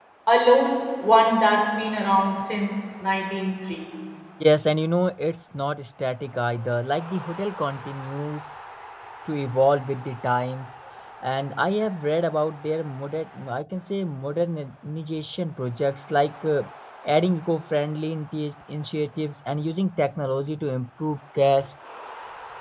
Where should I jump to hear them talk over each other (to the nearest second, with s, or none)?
none